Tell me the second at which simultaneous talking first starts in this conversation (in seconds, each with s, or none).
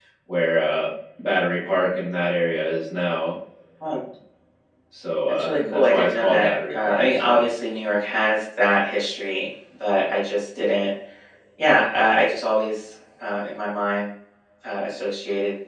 5.3 s